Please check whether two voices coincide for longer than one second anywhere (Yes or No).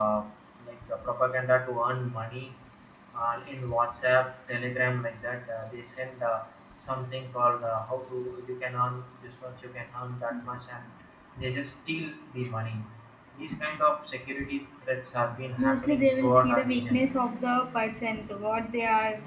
Yes